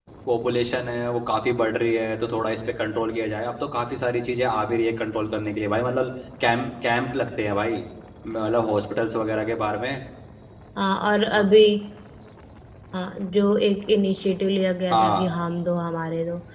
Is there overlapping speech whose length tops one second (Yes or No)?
No